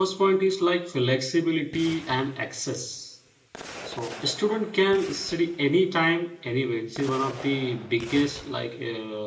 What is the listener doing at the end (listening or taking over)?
listening